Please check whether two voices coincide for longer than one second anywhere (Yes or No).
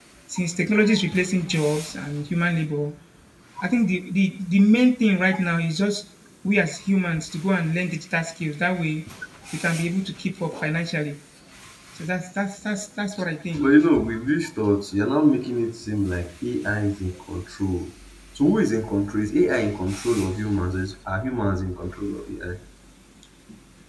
No